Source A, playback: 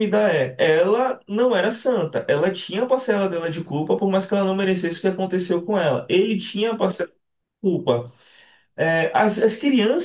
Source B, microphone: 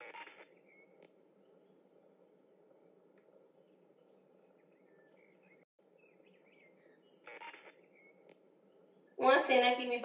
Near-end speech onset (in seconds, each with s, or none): 9.2 s